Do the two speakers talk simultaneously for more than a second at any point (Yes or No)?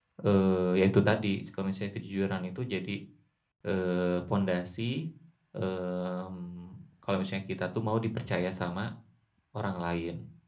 No